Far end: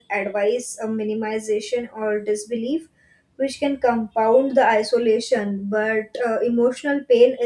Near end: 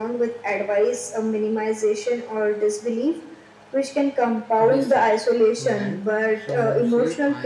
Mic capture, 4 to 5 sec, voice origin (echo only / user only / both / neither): both